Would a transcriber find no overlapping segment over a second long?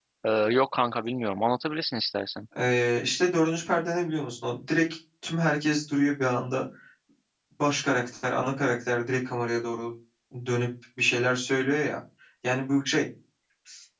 Yes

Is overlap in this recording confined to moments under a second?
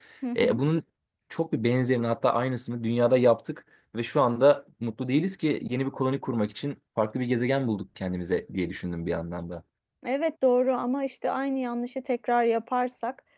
Yes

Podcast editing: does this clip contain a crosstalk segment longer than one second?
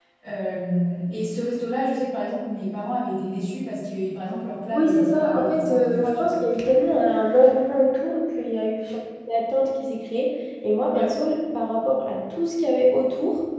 Yes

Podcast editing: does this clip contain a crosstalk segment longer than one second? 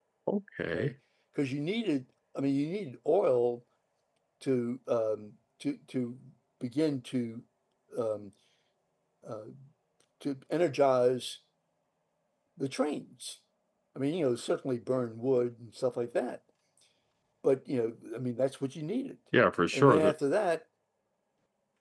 No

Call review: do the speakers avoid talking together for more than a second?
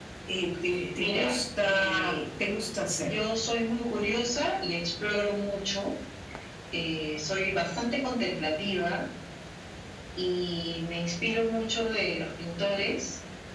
No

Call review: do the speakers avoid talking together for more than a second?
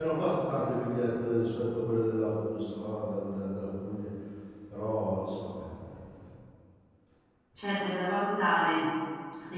Yes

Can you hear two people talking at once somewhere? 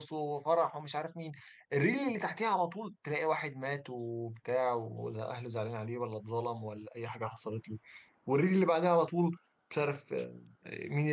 No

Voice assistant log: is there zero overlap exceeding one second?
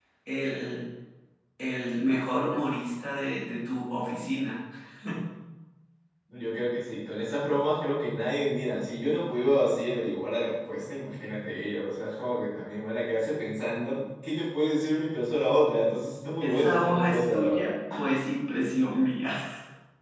No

